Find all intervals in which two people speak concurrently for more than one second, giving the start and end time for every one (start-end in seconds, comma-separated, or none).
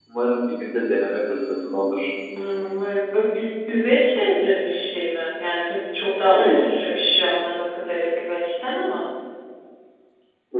none